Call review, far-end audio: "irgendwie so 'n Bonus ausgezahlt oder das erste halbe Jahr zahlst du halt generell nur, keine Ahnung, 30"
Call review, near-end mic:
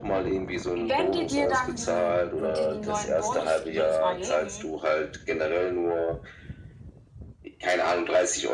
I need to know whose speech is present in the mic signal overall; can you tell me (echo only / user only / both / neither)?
both